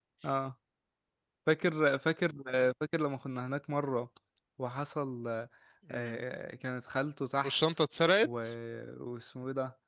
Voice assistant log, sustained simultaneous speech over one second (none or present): none